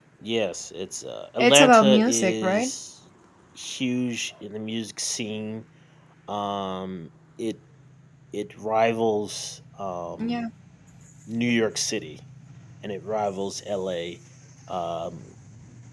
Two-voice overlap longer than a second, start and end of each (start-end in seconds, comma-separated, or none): 1.4-2.7